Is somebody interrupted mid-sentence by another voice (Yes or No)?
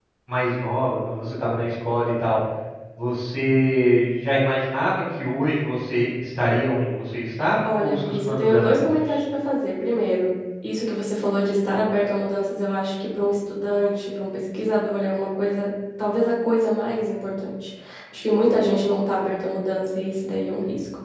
Yes